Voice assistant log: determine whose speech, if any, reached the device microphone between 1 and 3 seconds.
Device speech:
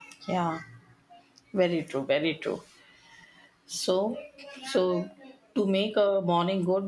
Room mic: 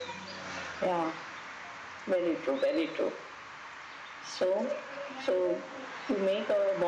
echo only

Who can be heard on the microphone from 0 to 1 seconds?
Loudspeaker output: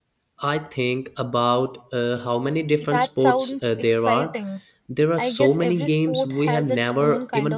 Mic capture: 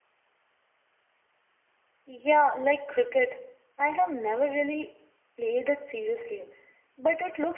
neither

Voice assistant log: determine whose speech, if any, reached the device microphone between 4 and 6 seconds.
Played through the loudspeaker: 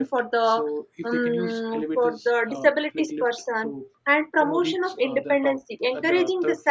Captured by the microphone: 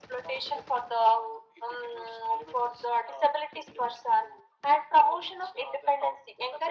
echo only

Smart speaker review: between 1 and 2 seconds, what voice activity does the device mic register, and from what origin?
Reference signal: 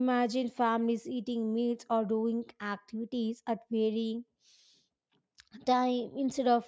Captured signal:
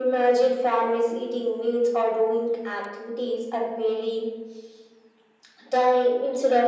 echo only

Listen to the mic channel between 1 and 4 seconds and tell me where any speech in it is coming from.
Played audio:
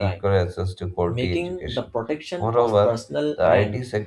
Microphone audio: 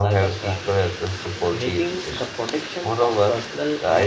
echo only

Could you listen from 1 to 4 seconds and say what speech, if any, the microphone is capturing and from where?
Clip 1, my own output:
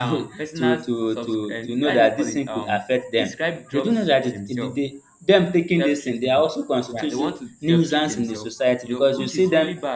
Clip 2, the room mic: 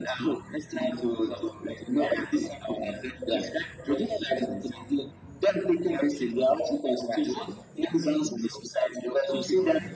echo only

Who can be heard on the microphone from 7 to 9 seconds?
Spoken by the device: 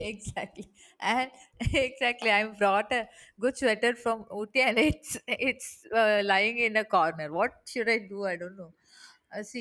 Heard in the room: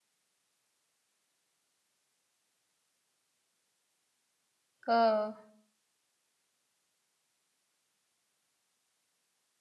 neither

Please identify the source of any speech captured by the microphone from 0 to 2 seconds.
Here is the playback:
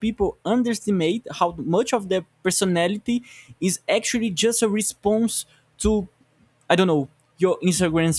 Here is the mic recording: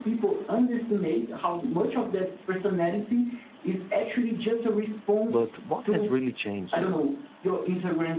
echo only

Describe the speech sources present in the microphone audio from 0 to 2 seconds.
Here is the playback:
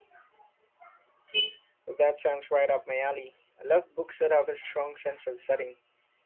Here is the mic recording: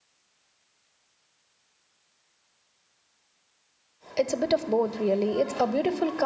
neither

